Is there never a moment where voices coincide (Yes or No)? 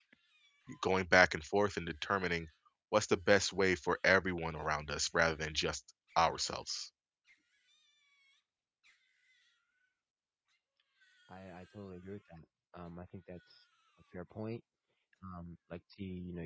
Yes